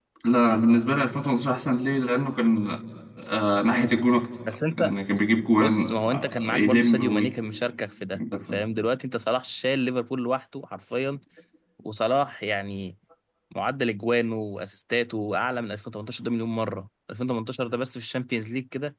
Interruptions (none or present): present